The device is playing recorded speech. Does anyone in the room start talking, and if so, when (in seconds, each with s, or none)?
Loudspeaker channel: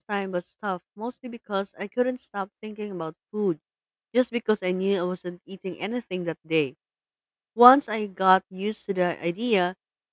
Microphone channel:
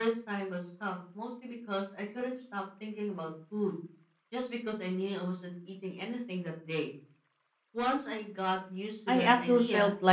9.1 s